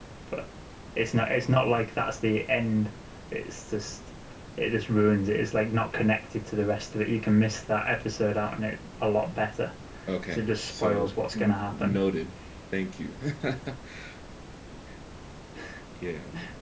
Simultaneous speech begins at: 10.2 s

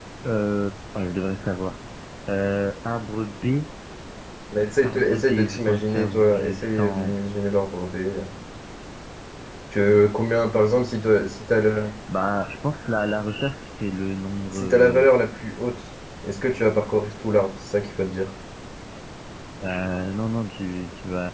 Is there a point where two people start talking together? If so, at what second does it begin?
4.8 s

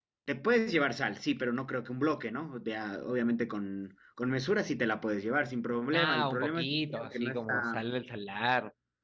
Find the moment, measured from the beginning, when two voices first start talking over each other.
5.9 s

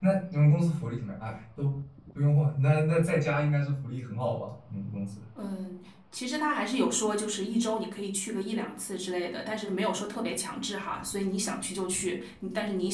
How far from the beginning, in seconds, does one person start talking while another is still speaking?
none

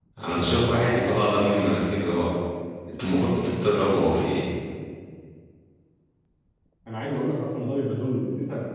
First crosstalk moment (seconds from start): none

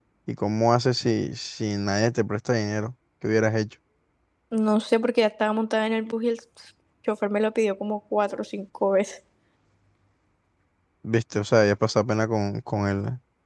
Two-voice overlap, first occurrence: none

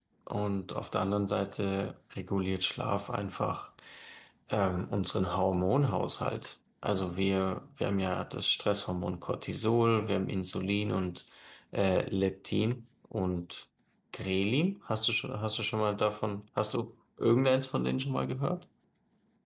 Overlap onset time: none

